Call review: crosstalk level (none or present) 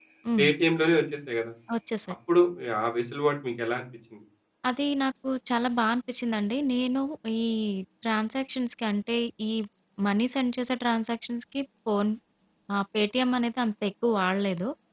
none